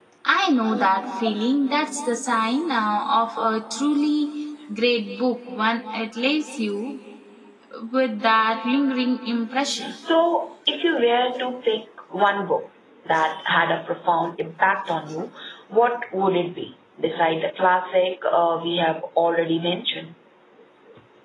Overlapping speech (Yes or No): No